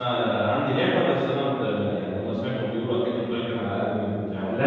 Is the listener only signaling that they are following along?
No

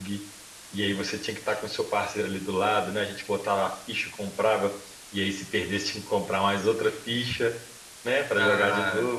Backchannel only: Yes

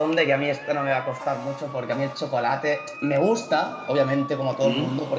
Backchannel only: Yes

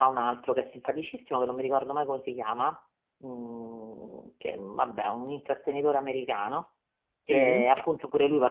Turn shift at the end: No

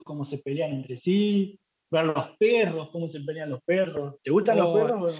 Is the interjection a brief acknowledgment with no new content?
No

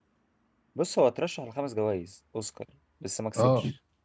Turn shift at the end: Yes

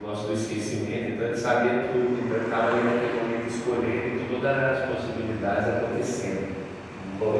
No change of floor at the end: No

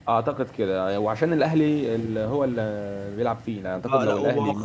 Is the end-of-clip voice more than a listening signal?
Yes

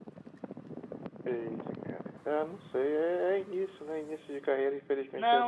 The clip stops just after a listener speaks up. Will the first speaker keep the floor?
No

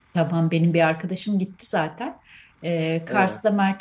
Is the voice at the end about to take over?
No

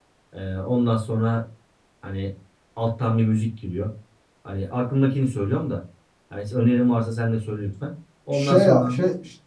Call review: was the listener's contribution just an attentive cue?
No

